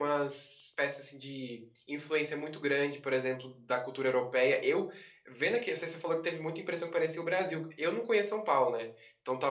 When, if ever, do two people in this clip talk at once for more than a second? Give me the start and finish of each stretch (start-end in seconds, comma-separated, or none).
none